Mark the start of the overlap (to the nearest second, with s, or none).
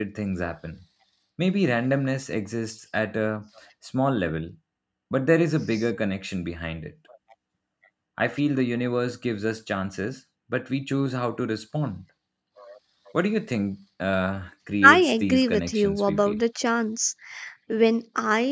15 s